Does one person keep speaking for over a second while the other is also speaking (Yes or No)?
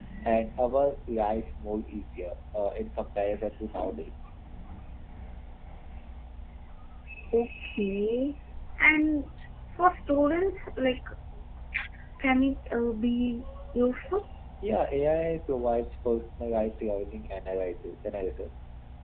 No